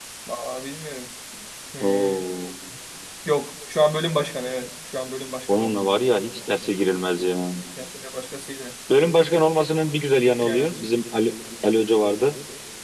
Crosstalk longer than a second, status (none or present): none